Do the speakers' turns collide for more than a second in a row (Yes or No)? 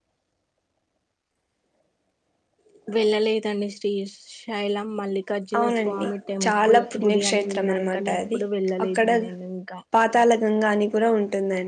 Yes